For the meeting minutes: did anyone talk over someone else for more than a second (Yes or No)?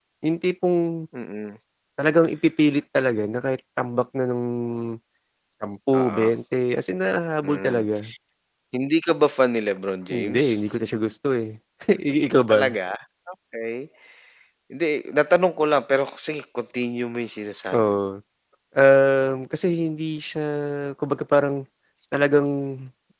No